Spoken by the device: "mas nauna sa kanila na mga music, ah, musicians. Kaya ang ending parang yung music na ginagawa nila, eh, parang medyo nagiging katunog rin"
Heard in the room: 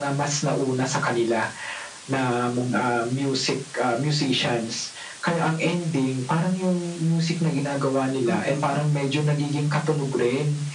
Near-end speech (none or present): present